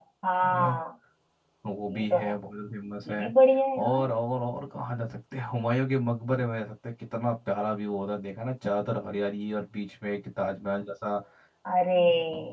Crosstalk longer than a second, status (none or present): none